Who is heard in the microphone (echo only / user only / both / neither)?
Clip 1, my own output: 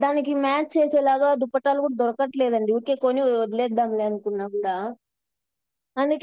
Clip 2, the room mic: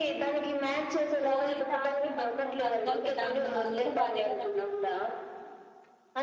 both